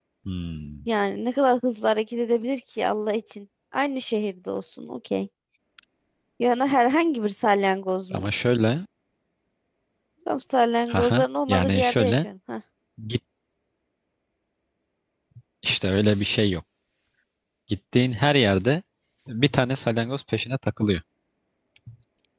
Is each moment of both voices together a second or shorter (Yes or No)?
No